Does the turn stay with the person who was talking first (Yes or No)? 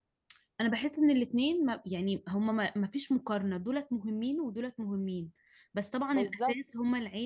Yes